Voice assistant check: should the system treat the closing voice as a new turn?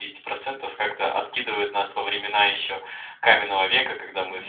No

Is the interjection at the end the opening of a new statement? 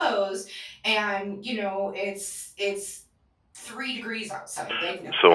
Yes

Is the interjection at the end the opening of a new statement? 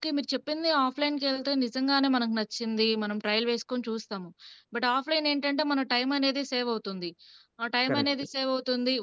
No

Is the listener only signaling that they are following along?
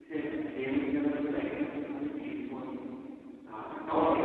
Yes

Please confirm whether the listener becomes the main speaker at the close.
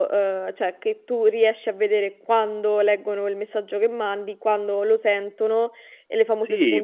Yes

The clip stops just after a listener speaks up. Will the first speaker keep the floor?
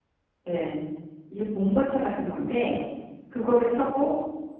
Yes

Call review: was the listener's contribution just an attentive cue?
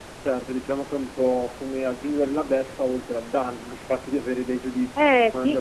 No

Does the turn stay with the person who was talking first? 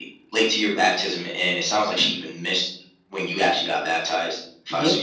No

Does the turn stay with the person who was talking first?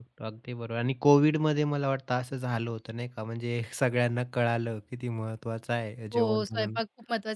No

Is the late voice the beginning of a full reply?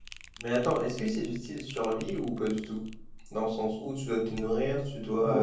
Yes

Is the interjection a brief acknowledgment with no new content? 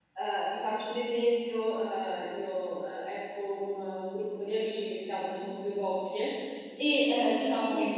Yes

